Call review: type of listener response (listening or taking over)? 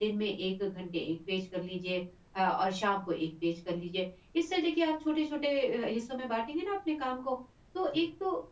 listening